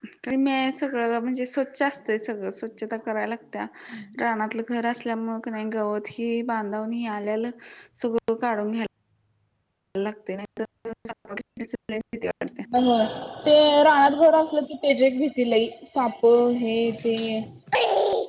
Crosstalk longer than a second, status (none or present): none